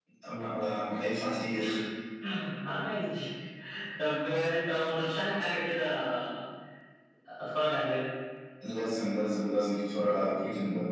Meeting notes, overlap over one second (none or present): none